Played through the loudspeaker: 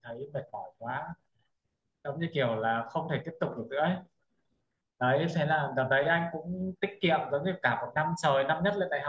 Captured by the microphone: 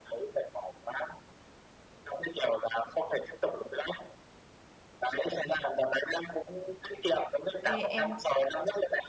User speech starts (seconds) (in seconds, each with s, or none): 7.6 s